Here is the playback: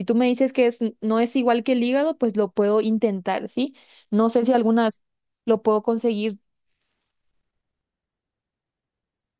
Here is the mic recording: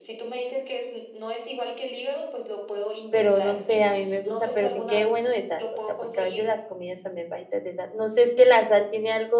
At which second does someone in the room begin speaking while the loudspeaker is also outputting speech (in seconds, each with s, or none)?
3.1 s